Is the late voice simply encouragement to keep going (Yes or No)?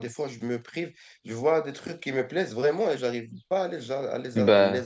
Yes